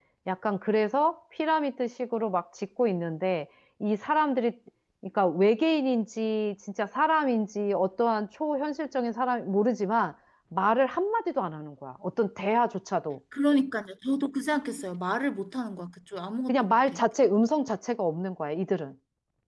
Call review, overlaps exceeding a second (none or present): none